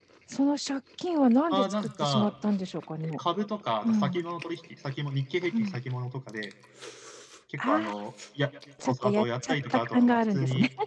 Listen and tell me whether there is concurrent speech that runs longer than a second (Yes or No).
Yes